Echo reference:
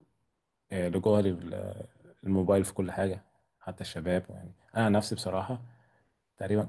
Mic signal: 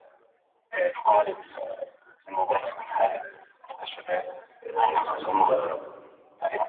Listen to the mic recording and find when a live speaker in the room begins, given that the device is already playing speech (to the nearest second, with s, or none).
5 s